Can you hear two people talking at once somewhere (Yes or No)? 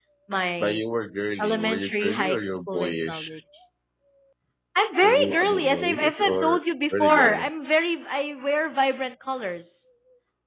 Yes